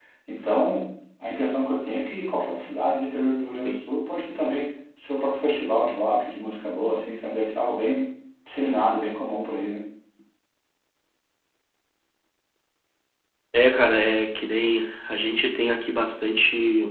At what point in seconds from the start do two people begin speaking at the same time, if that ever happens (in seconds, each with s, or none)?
none